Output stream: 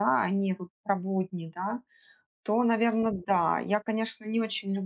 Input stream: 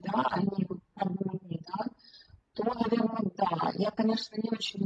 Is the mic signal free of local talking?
Yes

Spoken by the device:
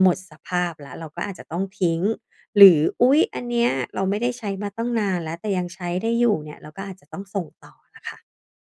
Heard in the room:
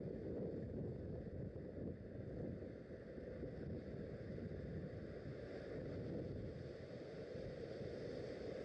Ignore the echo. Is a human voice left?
No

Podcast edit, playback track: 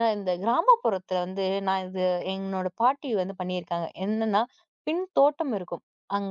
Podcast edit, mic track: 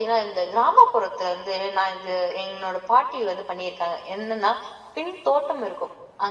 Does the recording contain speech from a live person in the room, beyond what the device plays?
No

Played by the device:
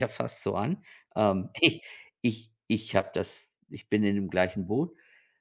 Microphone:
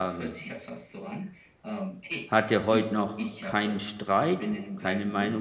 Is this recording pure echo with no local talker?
No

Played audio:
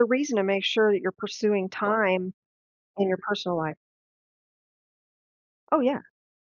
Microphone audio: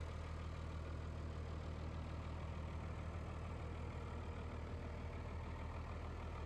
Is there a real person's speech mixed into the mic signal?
No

